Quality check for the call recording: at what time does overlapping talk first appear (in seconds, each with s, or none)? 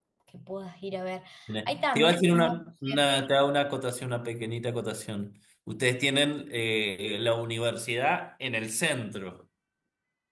1.7 s